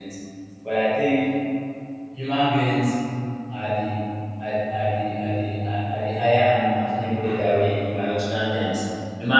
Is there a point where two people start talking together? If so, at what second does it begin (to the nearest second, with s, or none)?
none